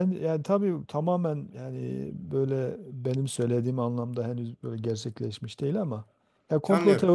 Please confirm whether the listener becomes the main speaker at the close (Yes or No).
No